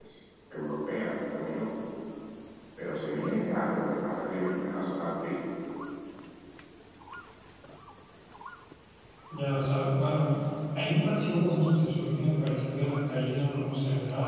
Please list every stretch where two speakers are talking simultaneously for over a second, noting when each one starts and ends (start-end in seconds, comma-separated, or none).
none